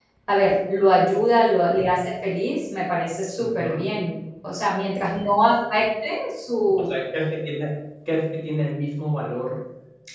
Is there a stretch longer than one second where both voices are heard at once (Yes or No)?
No